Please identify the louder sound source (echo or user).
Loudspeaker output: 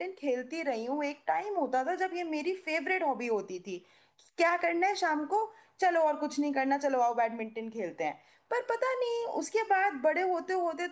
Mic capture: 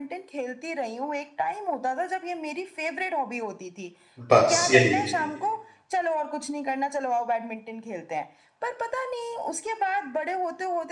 user